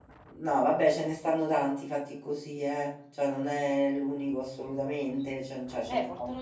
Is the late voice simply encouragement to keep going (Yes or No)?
No